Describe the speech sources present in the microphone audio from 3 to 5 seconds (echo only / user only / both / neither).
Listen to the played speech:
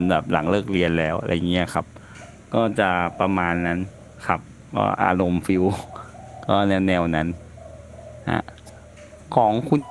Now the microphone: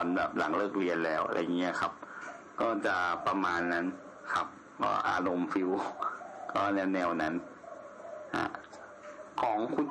echo only